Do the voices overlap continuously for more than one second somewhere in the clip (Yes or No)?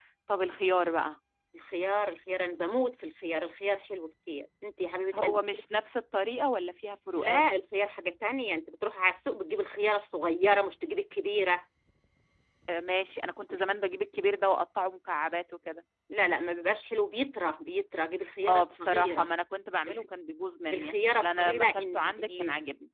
Yes